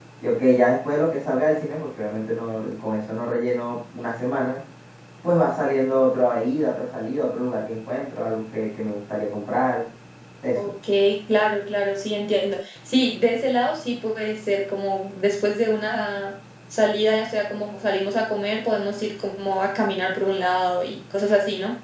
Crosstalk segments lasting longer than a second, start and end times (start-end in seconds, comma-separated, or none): none